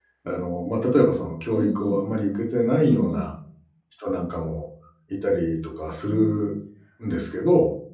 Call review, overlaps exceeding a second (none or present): none